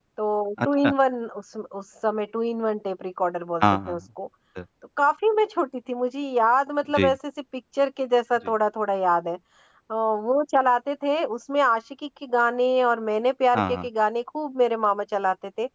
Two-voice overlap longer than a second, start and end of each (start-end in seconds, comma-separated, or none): none